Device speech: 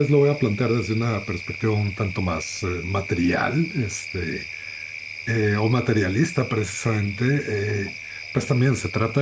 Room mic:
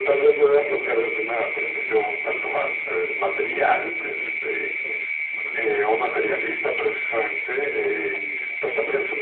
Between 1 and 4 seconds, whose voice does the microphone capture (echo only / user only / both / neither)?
both